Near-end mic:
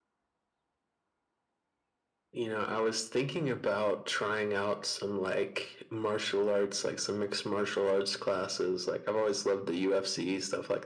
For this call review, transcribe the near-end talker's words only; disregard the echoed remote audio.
none

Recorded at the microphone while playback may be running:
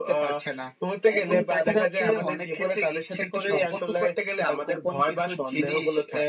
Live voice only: none

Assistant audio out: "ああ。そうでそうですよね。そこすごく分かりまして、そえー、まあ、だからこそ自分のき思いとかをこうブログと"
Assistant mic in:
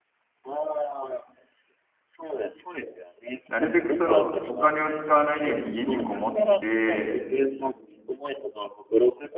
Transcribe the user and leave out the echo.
なるべくそのお金を使わないように家にこもって、

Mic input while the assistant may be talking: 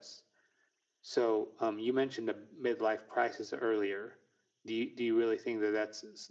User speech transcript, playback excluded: none

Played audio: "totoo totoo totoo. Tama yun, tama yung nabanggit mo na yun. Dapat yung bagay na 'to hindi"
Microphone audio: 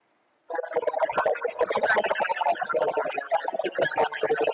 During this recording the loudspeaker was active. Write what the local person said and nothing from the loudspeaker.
none

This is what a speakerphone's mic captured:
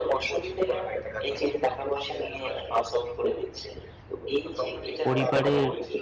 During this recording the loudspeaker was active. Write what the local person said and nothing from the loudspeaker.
পরিবারের

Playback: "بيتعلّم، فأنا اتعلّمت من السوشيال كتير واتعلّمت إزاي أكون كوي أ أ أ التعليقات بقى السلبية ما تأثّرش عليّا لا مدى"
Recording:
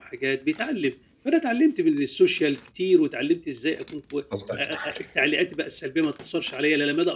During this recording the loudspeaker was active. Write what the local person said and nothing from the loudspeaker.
الله يفتح عليك،

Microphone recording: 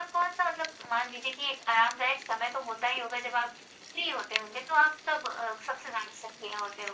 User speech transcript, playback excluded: none

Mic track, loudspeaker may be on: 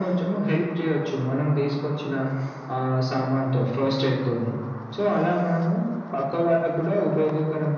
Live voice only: none

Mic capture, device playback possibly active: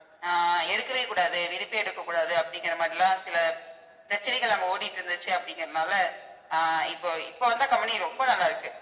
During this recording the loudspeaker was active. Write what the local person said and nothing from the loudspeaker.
none

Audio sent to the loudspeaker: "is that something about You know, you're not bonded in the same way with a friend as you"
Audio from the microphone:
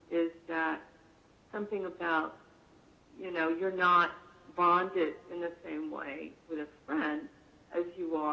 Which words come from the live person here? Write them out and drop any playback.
none

